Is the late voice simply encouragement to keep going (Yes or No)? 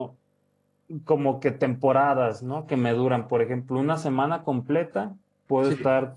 Yes